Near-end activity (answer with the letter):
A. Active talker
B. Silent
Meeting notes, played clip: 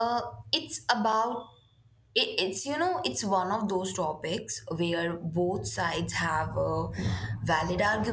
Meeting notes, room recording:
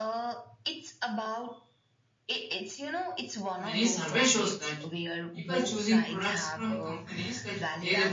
A